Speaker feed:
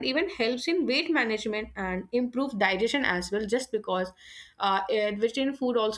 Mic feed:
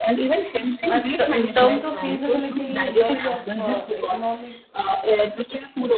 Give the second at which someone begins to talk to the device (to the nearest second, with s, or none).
1 s